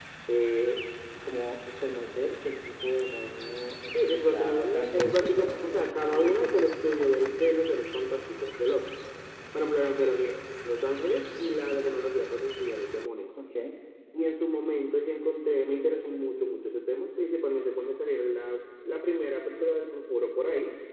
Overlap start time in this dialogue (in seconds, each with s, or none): 3.9 s